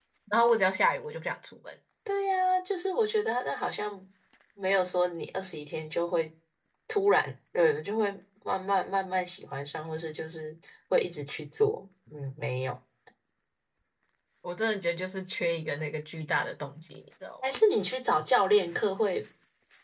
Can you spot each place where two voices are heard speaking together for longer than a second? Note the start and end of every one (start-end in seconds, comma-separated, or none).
none